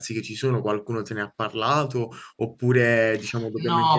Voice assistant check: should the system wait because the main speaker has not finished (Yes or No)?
No